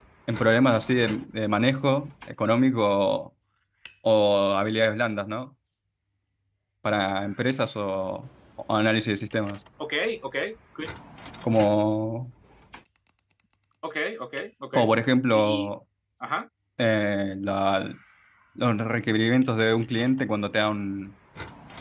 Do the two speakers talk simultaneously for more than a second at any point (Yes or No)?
No